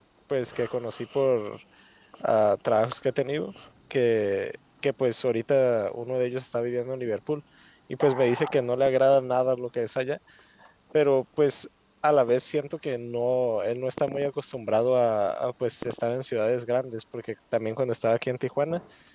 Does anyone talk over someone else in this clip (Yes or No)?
No